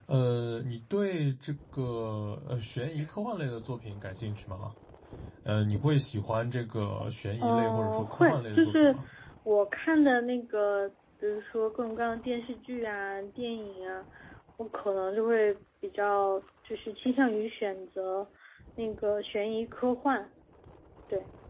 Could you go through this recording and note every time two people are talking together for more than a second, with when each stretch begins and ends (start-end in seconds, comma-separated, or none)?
7.4-8.9